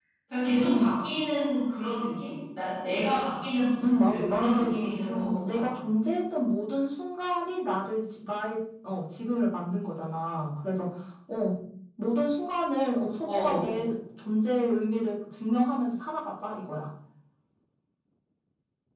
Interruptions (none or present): present